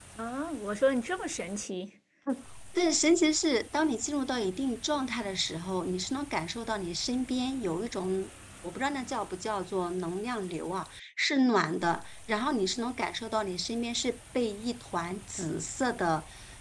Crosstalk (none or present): none